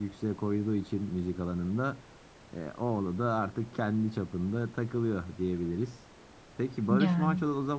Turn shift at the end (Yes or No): No